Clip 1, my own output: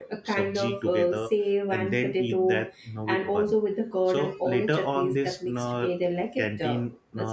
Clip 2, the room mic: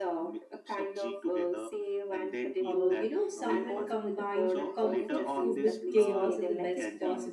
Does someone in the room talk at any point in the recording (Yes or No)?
Yes